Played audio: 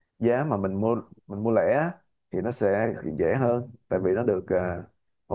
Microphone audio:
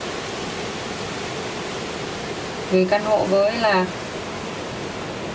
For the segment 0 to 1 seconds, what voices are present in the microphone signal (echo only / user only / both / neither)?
neither